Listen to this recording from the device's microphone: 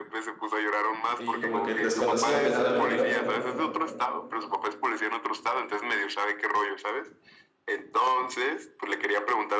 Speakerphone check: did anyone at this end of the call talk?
Yes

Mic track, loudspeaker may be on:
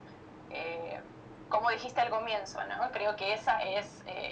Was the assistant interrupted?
No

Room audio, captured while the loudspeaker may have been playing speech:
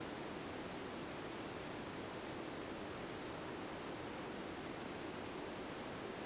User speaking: No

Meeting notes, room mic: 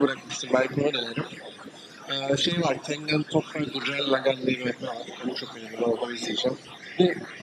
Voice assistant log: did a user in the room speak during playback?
No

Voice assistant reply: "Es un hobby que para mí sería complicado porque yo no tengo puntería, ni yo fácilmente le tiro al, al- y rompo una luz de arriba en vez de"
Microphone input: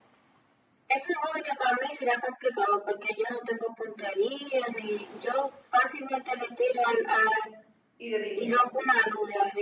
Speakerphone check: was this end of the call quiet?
No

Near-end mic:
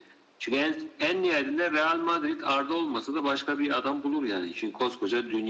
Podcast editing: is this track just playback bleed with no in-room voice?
Yes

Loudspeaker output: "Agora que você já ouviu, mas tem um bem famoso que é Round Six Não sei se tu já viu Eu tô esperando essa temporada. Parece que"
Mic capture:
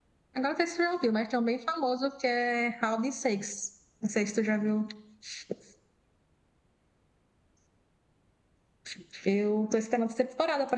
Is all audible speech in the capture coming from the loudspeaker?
Yes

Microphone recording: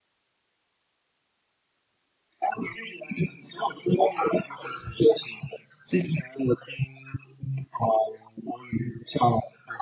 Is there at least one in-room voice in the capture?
Yes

